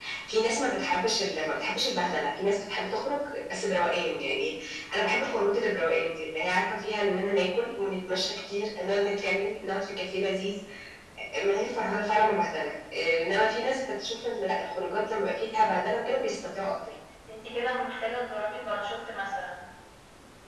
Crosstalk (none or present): none